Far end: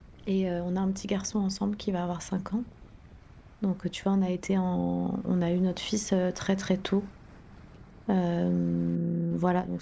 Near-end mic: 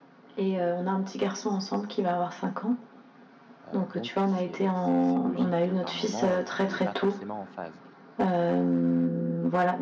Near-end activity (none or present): present